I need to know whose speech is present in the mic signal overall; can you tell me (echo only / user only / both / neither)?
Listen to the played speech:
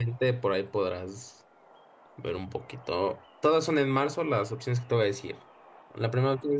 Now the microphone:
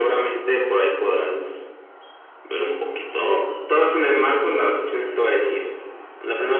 echo only